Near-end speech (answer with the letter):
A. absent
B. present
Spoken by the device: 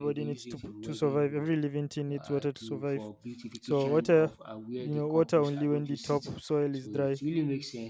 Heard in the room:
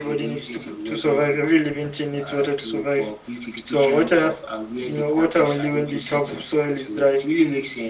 A